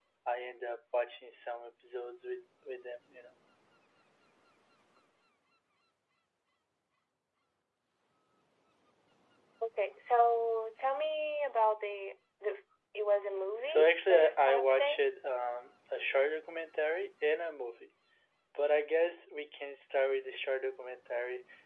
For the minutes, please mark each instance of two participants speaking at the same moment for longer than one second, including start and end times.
13.7-15.0

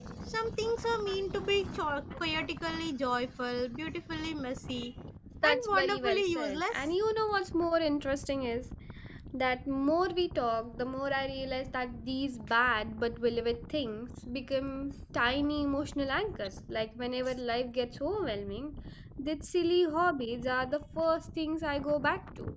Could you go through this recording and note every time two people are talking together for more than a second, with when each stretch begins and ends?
5.4-6.9

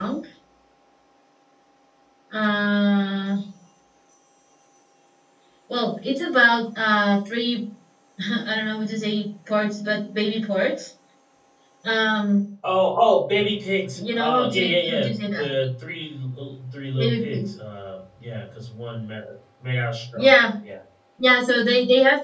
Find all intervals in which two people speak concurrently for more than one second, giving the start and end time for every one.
13.9-15.5

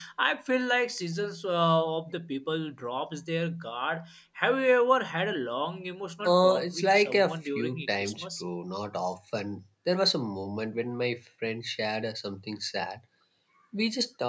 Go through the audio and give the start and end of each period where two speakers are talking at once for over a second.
6.3-8.4

